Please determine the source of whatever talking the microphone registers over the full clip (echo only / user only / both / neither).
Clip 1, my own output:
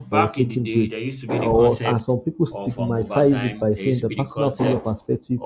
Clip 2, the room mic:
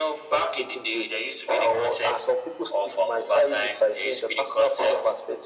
echo only